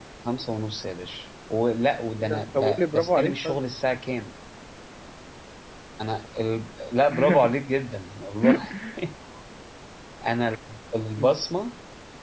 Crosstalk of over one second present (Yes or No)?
Yes